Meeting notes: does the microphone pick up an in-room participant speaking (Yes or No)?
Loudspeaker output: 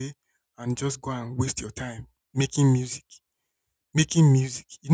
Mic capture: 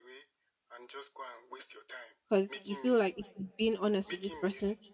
Yes